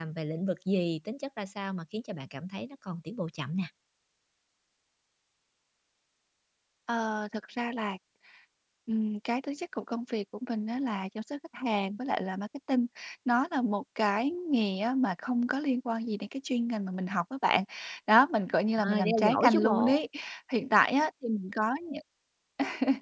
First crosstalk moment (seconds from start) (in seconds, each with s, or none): 18.8 s